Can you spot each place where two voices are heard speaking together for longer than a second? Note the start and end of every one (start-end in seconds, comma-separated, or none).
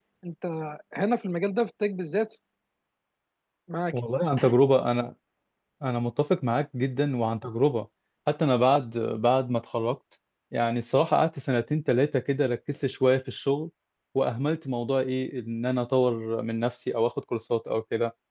none